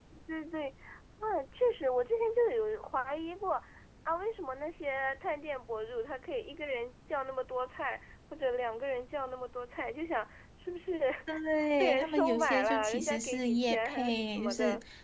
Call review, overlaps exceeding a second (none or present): present